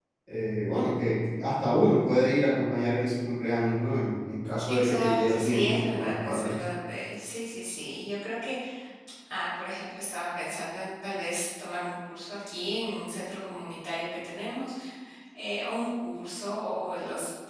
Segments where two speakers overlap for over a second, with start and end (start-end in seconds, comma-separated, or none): 4.7-6.6